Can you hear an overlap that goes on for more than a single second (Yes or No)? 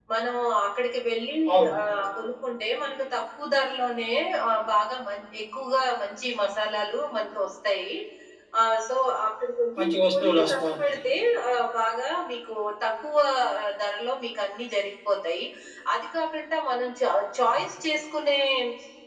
Yes